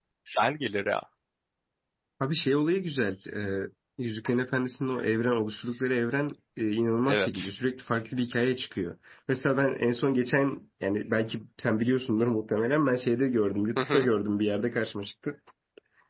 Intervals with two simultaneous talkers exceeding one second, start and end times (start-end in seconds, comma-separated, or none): none